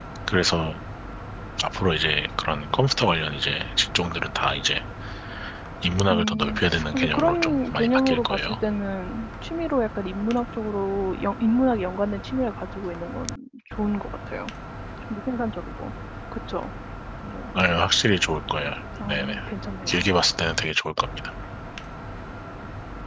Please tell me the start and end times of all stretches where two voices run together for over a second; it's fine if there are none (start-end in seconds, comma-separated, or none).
6.1-8.6